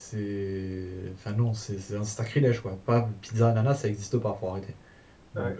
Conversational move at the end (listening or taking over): taking over